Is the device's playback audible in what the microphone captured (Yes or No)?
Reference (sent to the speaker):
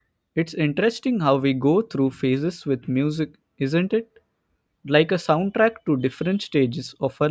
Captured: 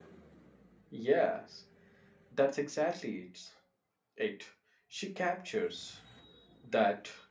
No